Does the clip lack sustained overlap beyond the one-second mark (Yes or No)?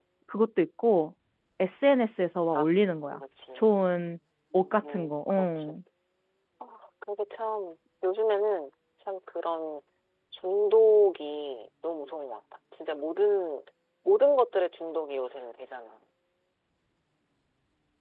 No